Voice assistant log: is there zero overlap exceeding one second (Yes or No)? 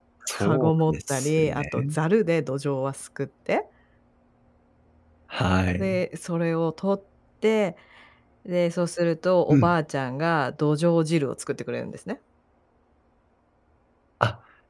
No